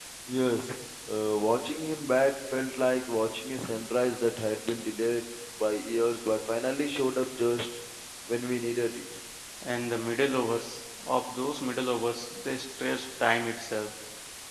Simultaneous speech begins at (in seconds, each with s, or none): none